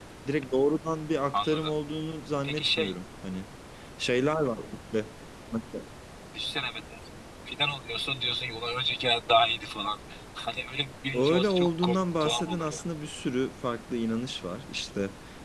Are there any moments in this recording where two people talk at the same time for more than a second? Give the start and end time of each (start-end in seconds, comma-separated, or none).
11.1-12.8